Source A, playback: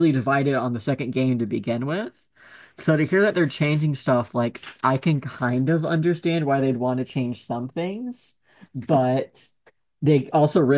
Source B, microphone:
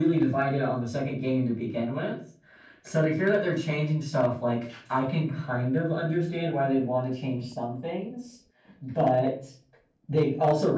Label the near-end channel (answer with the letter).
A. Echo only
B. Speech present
A